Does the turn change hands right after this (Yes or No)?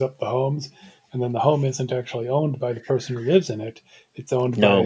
No